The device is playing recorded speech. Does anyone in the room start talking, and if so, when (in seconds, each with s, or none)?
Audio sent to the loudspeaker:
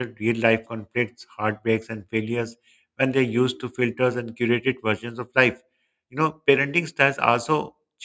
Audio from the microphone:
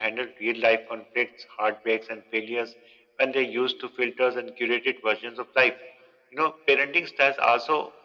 none